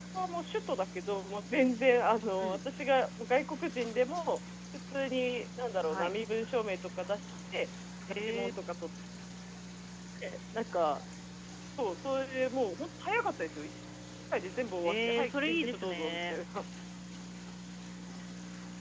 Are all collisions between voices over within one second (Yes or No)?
No